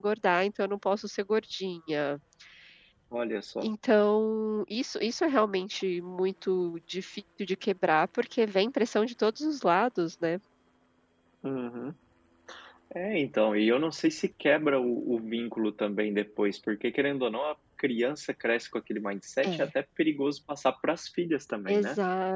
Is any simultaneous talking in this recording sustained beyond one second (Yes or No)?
No